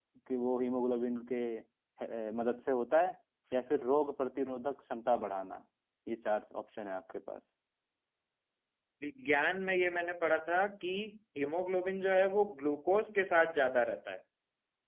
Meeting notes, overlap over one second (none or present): none